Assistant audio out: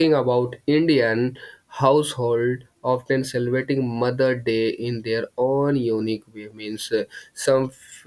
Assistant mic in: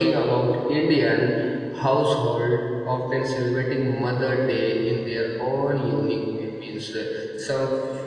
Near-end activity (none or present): none